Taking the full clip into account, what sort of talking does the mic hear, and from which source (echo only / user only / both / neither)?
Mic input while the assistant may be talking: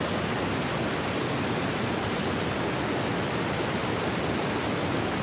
neither